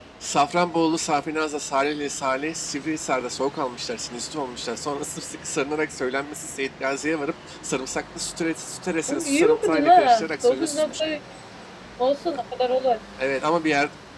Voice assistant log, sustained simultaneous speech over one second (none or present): present